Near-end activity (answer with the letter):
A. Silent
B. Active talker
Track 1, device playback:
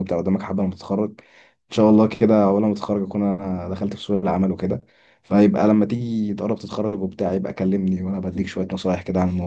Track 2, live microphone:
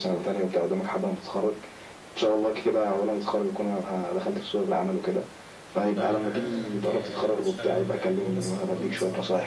B